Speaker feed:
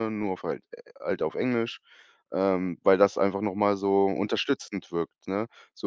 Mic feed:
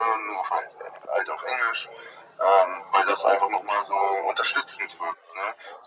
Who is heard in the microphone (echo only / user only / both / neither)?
echo only